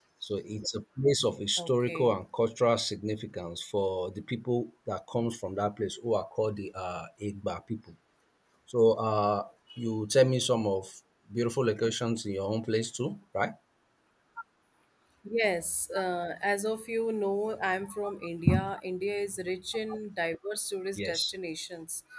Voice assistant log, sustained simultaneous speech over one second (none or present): none